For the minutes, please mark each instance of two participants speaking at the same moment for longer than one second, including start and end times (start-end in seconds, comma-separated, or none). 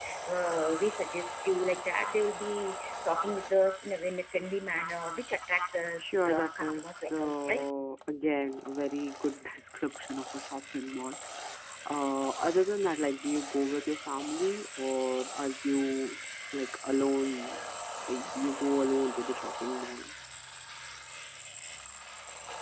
6.0-7.6